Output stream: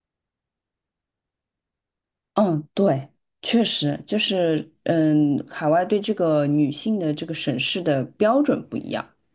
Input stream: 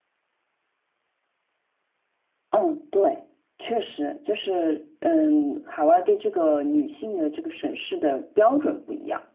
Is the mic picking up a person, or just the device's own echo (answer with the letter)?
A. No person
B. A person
A